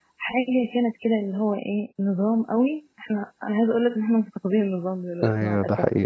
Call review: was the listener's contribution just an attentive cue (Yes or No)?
No